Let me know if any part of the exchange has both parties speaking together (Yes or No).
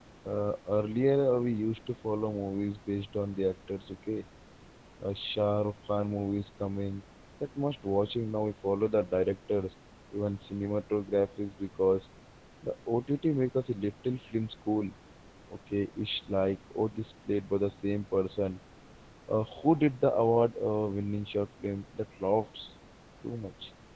No